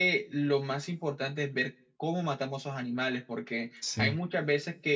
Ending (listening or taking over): listening